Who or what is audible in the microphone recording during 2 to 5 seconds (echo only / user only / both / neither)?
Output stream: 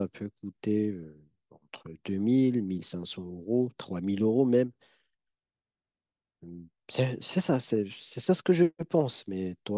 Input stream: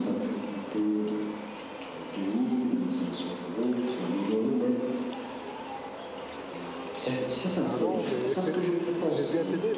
echo only